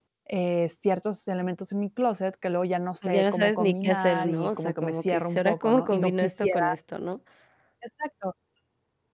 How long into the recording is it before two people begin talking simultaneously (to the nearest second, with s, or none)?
3 s